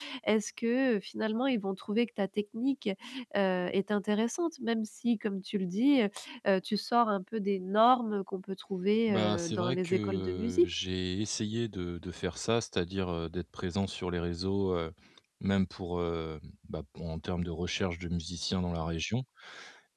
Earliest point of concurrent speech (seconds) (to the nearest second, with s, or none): 9 s